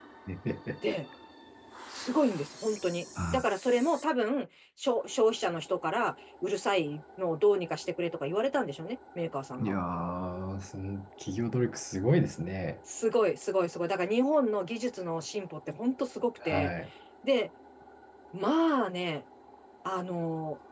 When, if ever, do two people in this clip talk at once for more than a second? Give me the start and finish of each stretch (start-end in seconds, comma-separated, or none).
none